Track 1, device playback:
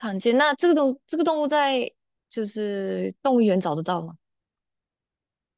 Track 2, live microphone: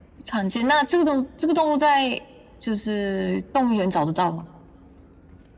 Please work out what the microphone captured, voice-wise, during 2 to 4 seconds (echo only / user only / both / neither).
echo only